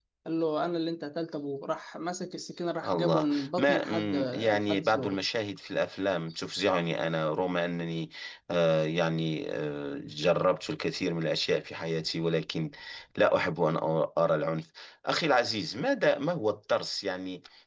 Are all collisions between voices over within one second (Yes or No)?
No